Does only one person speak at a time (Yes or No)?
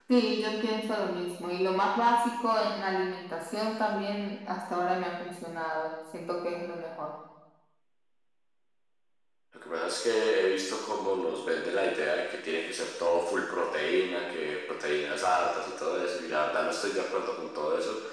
Yes